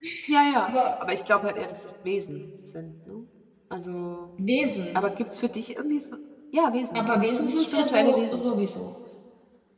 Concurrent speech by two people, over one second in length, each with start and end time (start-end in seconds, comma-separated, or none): 6.9-8.4